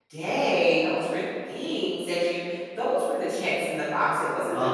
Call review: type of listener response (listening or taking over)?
listening